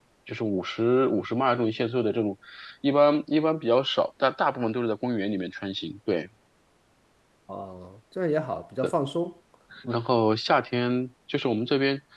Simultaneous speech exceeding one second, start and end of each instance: none

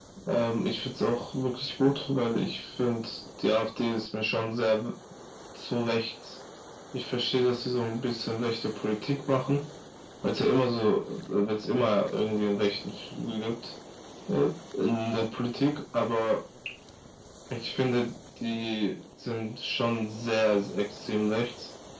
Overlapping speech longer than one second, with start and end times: none

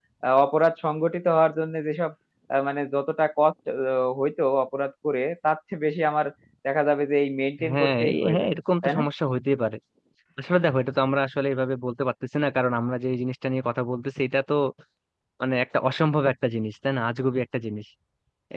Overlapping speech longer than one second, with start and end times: 7.7-9.0

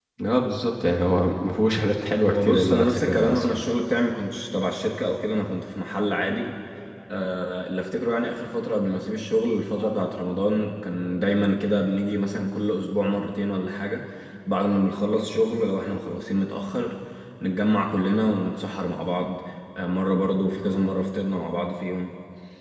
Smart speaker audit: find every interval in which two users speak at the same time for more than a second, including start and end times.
2.2-3.5

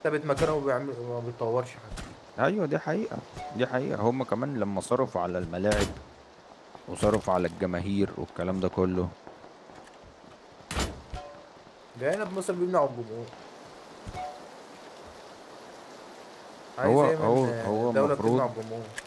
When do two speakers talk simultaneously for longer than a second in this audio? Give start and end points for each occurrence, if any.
16.9-18.5

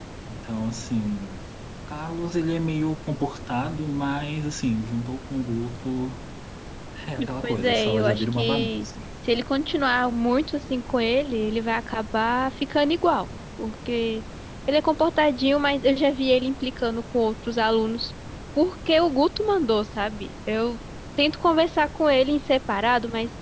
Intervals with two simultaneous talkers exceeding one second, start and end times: 7.4-8.8

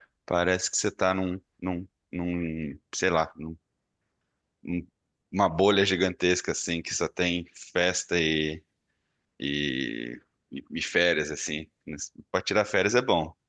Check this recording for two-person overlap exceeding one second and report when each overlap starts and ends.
none

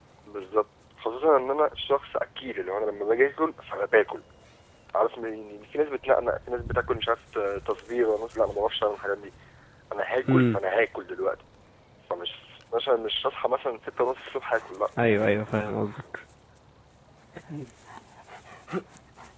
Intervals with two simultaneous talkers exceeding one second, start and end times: none

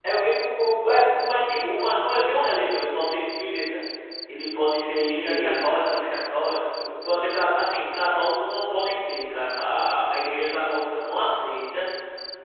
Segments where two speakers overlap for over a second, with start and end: none

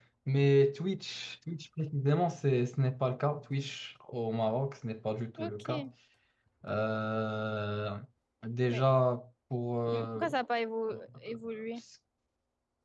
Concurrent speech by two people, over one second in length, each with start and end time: none

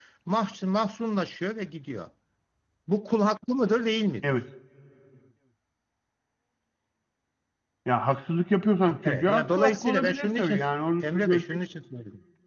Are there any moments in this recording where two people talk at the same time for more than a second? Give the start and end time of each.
9.1-10.6

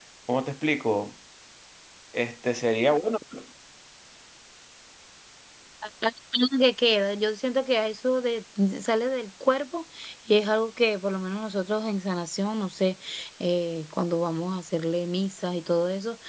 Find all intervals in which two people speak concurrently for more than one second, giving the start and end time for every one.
none

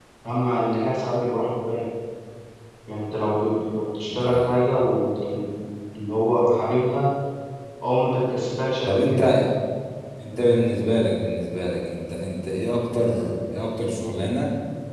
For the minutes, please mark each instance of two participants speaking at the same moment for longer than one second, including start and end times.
none

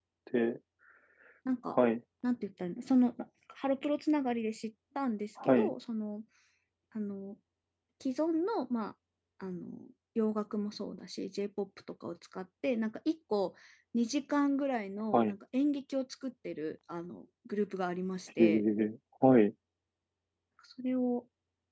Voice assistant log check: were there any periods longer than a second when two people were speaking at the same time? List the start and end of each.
none

